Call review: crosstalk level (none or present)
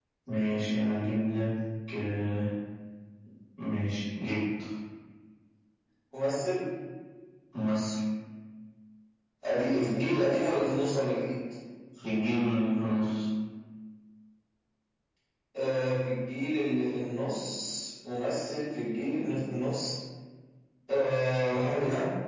none